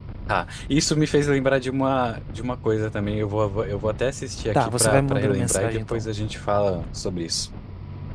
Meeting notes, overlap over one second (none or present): present